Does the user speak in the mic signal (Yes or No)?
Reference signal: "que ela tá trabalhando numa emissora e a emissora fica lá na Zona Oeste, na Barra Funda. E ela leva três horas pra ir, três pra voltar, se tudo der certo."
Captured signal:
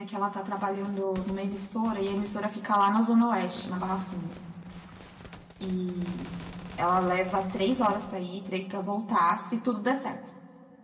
No